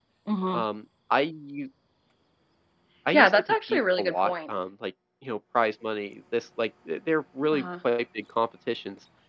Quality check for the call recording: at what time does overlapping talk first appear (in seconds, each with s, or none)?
3.1 s